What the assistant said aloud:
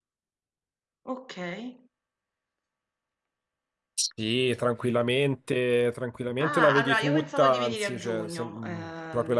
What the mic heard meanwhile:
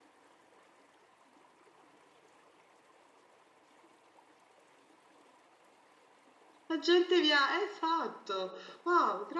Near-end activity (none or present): present